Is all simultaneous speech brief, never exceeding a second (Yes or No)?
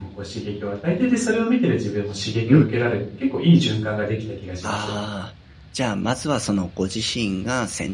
Yes